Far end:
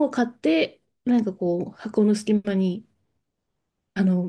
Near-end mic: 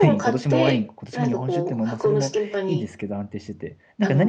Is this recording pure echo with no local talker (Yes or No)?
No